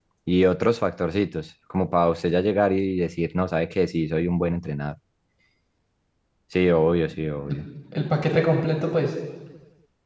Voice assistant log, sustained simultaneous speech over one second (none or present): none